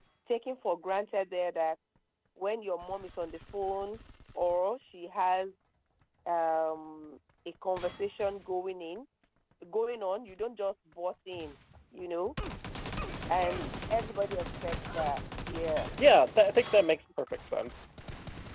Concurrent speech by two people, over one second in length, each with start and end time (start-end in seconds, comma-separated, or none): none